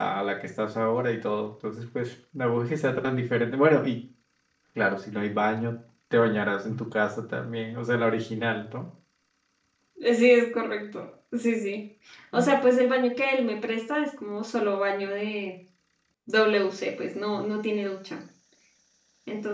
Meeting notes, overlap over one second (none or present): none